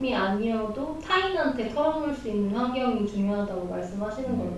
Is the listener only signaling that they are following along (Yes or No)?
No